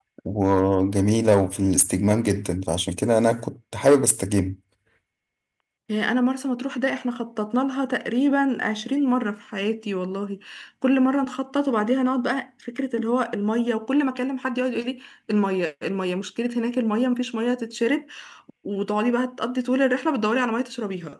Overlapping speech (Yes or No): No